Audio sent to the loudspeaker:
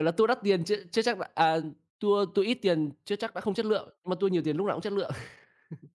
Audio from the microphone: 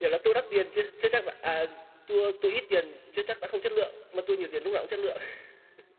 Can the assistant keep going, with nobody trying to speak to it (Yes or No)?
Yes